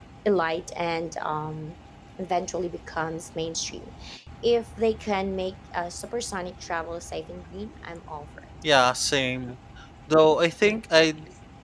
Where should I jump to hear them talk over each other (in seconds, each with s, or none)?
none